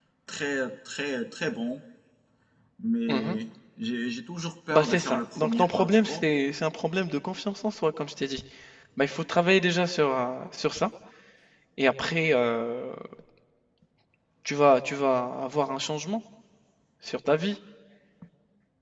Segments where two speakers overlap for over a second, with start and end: 4.7-6.2

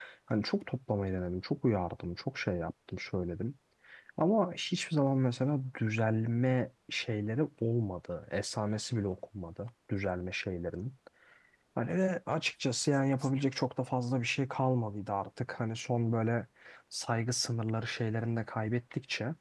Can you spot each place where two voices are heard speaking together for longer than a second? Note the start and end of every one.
none

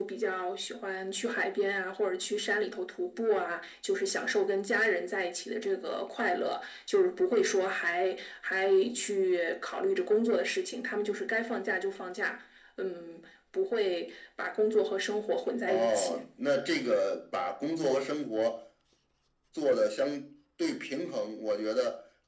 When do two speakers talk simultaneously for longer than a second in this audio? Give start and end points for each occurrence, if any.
none

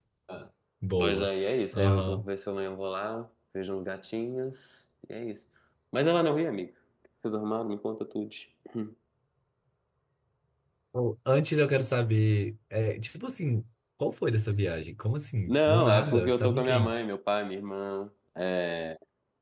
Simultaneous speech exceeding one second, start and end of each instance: 15.5-17.0

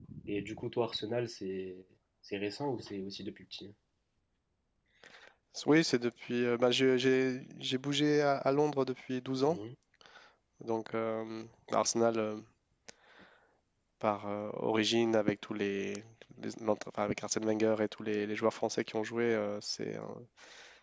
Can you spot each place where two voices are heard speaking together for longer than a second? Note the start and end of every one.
none

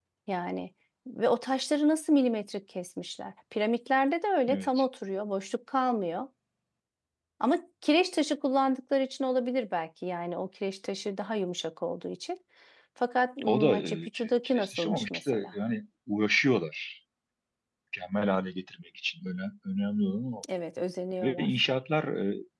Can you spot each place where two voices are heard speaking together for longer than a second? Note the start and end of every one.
13.4-15.5

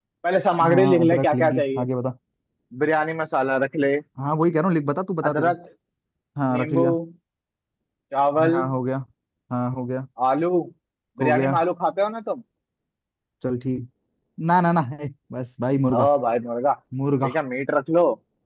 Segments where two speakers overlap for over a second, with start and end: 0.6-1.8

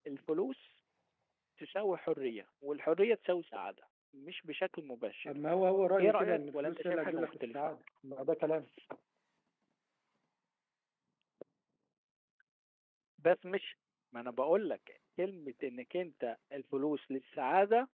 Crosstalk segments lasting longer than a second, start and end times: 6.0-7.5

